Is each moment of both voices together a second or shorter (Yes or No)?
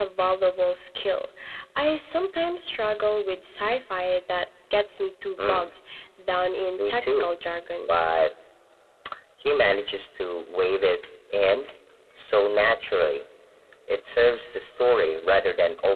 Yes